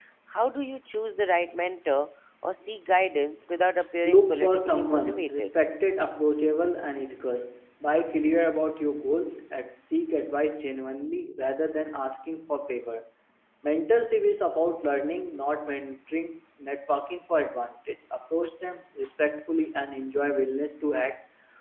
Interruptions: present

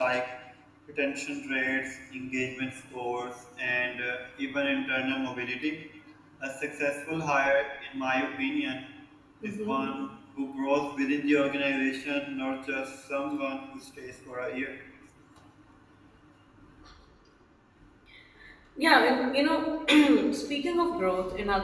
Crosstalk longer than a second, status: none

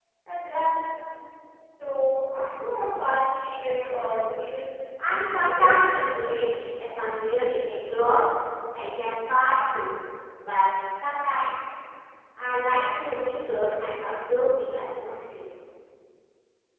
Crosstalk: present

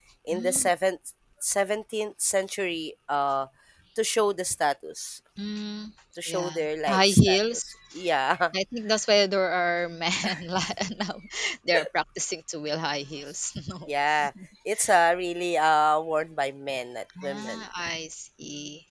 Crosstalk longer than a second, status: present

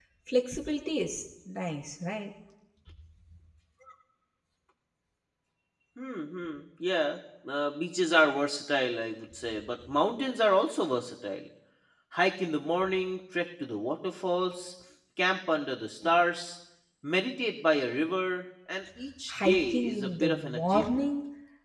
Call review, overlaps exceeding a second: present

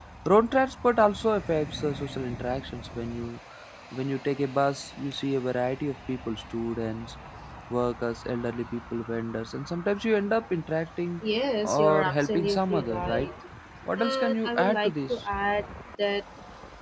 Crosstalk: present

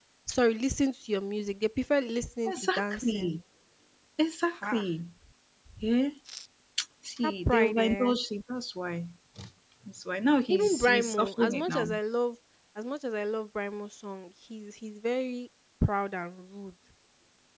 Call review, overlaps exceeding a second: present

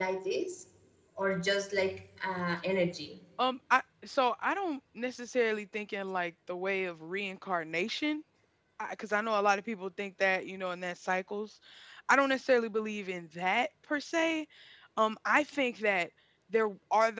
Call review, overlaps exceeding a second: none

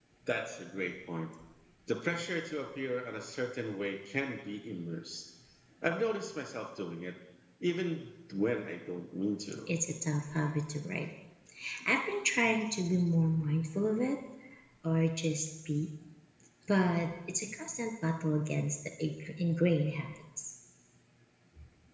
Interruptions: none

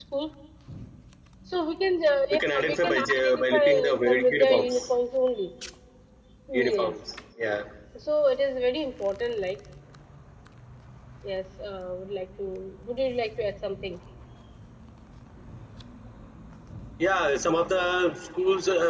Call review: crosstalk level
present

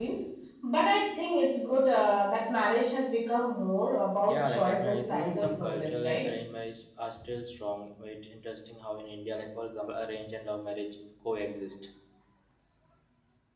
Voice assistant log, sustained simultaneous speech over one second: present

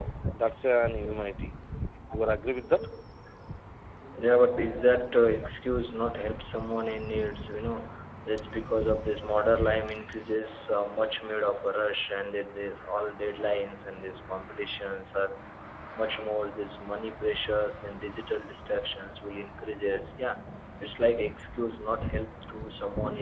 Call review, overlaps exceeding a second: none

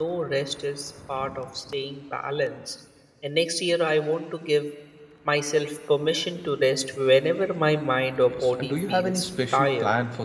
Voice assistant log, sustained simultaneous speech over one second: present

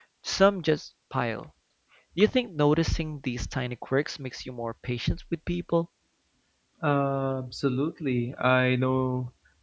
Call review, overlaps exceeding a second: none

